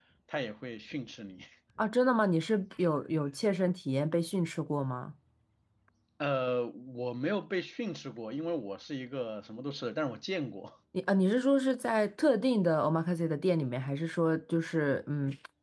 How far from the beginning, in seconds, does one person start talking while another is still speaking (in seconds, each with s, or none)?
none